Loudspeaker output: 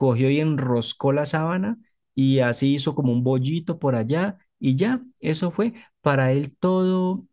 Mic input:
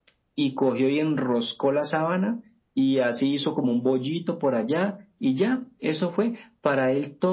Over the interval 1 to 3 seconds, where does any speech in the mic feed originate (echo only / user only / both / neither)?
echo only